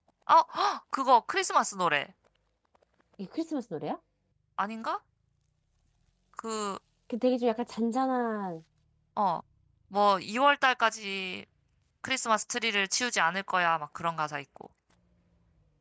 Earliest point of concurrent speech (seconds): none

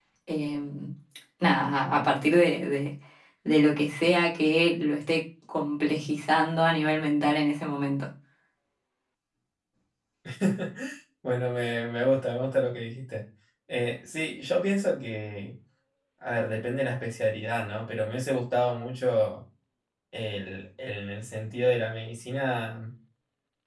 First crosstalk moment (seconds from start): none

